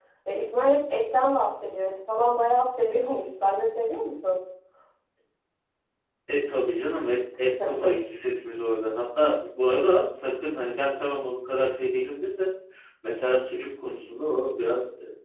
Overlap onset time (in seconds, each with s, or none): none